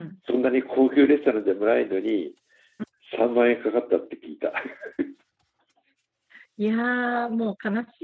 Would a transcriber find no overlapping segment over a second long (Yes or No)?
Yes